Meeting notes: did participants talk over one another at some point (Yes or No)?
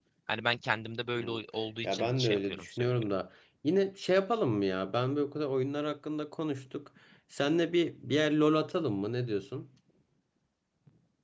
Yes